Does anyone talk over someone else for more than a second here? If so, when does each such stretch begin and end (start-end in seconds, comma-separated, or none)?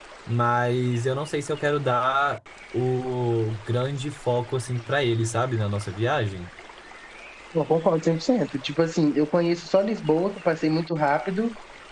none